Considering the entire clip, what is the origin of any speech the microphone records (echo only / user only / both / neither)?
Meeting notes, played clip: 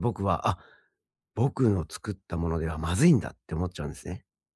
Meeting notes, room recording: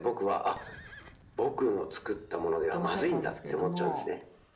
both